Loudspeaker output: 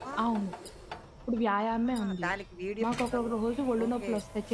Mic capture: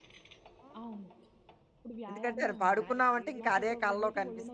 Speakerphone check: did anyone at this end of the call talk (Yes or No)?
Yes